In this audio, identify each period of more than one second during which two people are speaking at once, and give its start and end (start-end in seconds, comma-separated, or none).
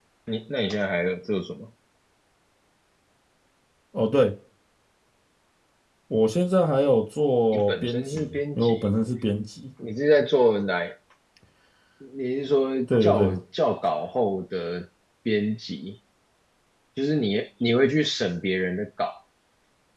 7.5-8.9